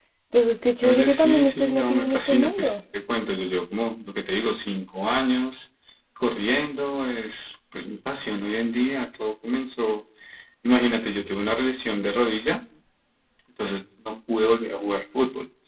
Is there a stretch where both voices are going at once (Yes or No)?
Yes